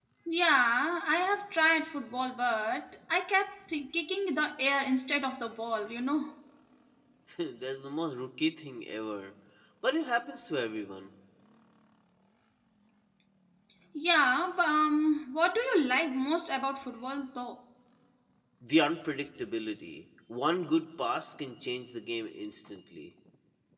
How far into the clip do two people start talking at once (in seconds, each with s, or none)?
none